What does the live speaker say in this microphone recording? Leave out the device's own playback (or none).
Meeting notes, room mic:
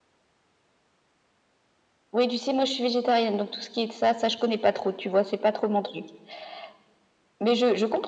none